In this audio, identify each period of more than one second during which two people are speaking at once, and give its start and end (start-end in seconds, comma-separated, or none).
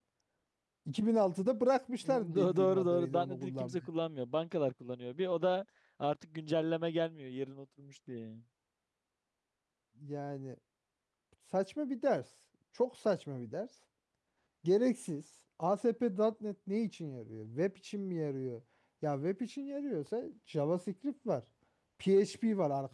2.0-3.8